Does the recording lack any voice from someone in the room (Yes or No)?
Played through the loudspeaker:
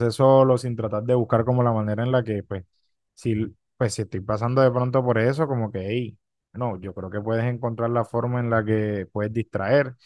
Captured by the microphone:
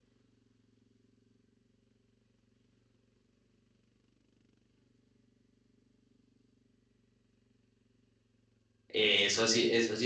No